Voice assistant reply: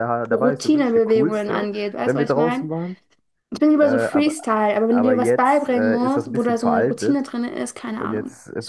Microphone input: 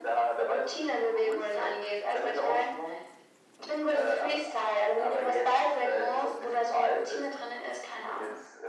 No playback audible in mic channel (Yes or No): No